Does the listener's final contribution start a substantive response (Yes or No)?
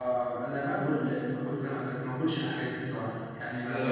Yes